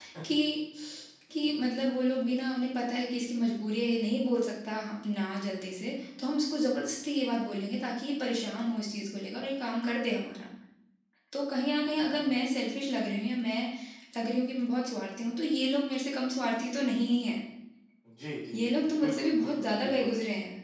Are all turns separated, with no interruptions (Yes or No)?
No